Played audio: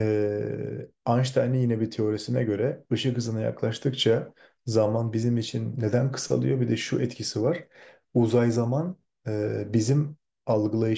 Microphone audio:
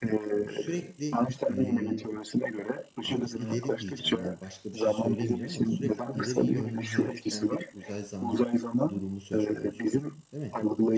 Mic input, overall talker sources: both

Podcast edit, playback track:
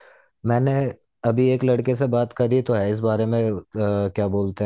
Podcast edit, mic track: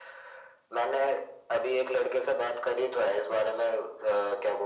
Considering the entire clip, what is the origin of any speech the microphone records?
echo only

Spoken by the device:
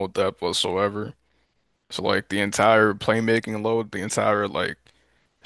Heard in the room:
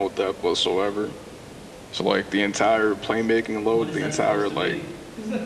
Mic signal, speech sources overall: both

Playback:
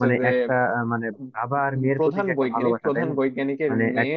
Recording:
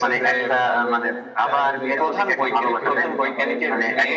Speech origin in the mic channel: both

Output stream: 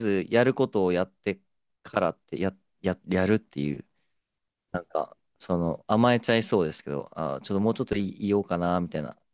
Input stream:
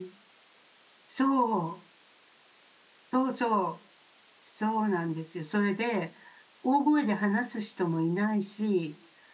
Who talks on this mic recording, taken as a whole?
user only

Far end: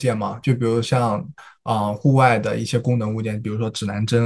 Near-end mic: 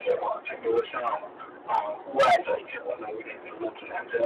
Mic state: echo only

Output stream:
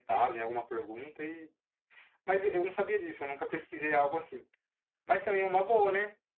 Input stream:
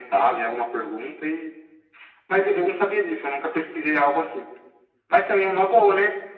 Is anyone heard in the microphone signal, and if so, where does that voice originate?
echo only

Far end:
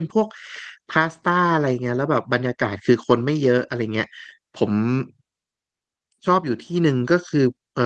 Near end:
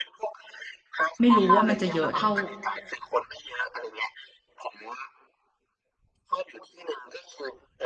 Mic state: both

